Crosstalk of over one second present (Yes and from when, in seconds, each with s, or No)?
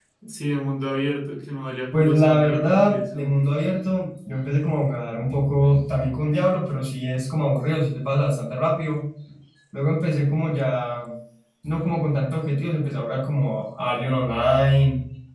Yes, from 1.9 s